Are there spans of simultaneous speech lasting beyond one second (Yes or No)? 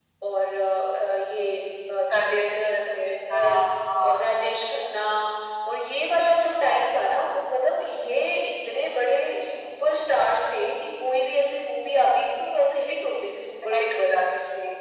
Yes